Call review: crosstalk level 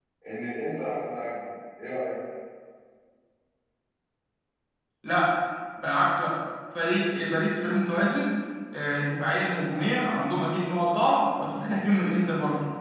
none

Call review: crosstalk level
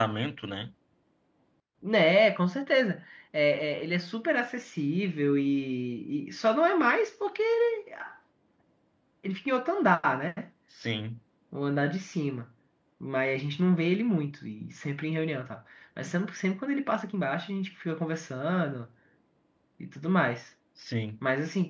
none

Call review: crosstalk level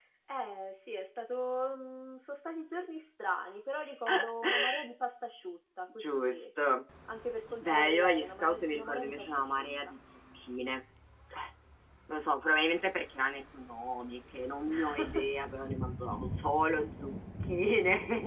present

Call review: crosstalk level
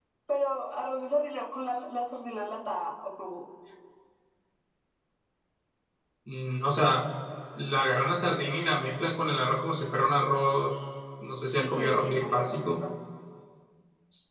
present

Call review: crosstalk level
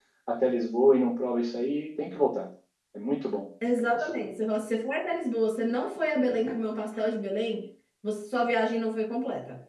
none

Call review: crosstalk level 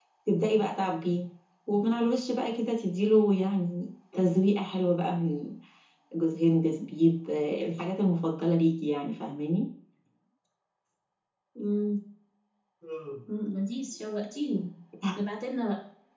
none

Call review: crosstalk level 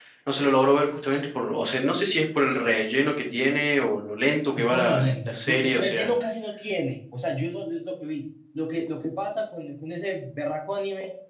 present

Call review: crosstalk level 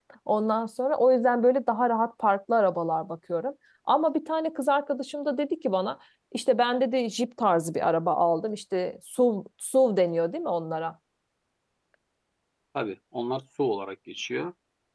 none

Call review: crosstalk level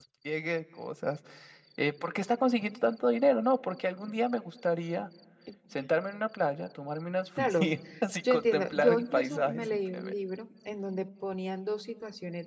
present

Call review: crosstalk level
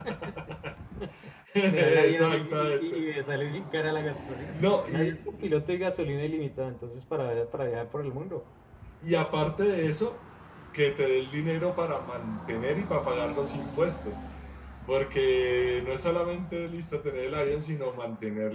present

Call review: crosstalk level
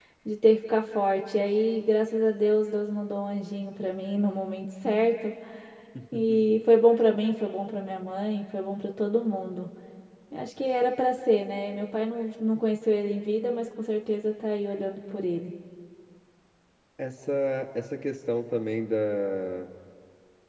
none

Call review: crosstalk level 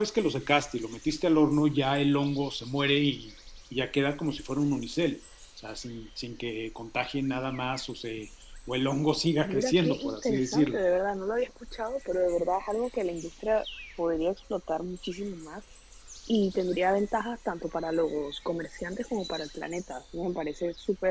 present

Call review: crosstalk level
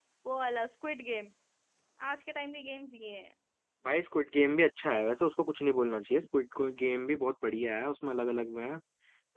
none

